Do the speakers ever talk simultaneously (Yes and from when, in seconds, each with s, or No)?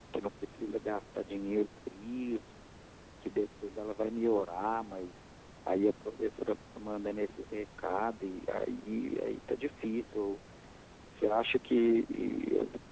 No